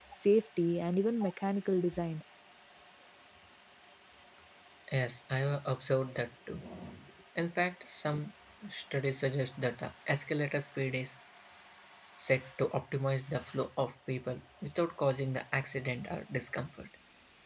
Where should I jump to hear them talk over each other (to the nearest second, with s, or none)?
none